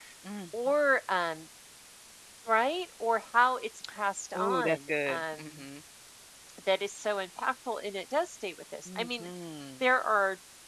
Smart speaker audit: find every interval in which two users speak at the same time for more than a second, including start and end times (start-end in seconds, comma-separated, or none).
4.3-5.5